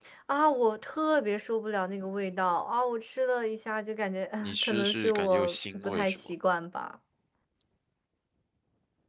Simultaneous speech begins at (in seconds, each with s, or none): 4.4 s